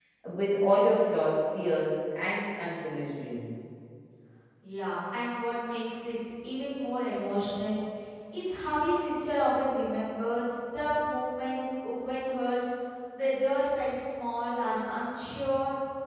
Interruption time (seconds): none

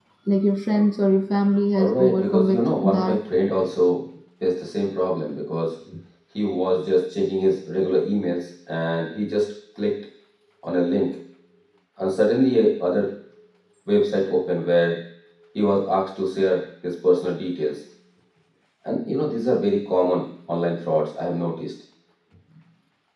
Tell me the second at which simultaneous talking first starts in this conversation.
1.8 s

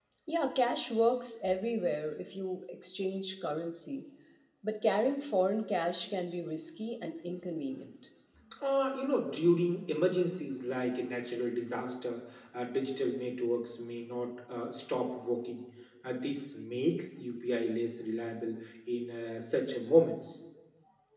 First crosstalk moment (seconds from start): none

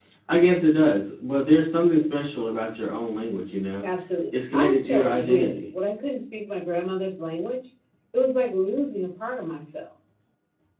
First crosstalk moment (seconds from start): 4.3 s

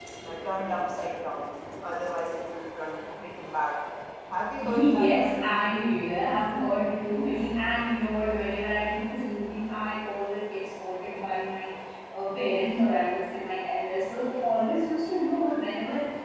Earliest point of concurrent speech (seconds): 4.6 s

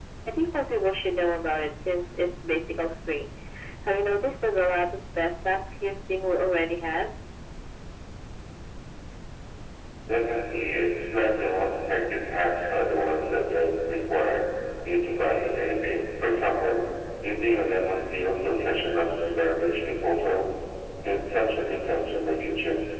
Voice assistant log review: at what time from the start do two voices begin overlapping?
none

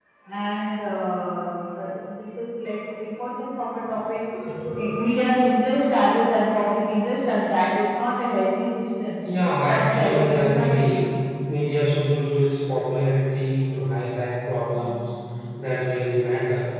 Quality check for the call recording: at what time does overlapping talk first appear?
9.7 s

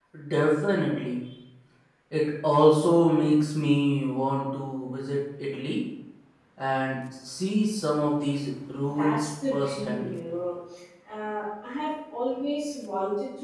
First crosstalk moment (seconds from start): 8.8 s

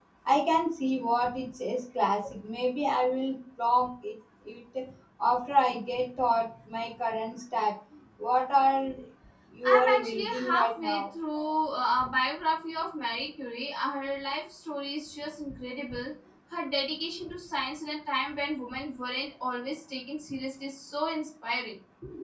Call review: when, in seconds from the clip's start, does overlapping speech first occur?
9.6 s

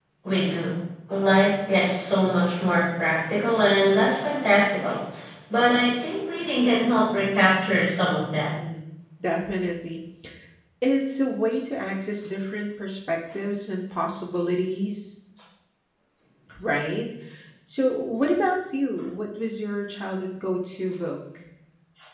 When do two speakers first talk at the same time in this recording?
none

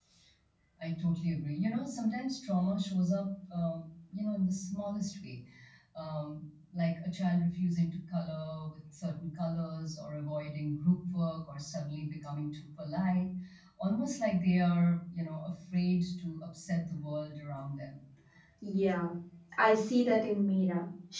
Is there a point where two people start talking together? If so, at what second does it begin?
none

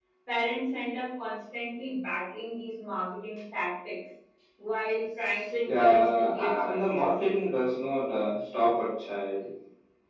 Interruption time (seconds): 5.7 s

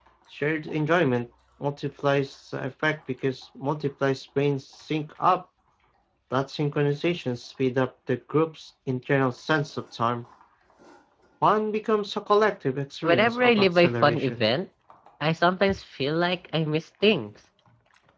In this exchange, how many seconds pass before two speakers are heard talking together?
13.0 s

